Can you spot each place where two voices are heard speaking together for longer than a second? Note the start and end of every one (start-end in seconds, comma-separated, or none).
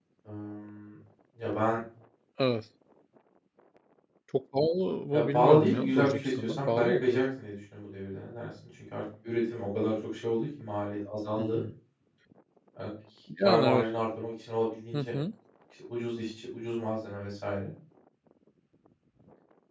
5.1-7.2